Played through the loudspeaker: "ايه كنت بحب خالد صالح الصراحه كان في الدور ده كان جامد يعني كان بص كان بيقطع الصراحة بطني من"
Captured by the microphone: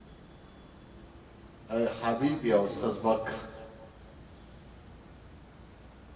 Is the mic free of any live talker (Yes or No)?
No